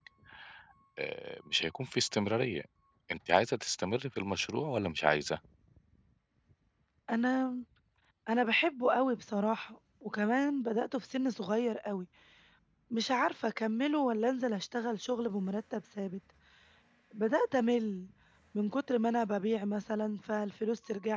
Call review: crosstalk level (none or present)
none